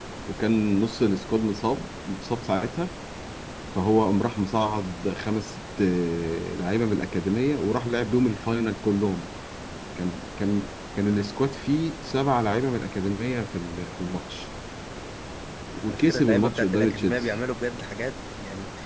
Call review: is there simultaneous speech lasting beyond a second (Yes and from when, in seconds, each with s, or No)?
Yes, from 15.9 s